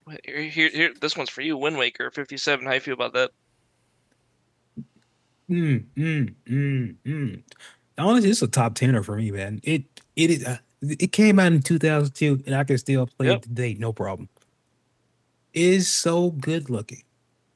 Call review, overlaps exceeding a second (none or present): none